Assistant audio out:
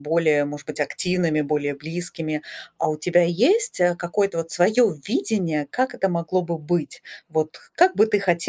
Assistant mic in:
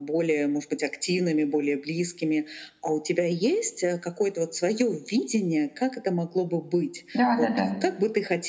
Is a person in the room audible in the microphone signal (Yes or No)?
Yes